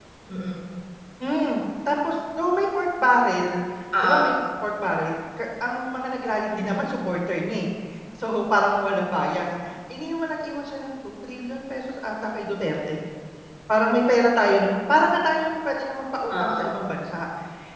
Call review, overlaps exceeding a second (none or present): none